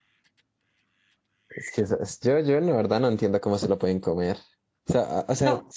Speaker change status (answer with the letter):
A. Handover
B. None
B